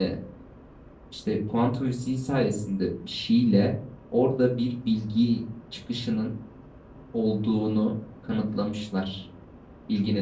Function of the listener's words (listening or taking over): listening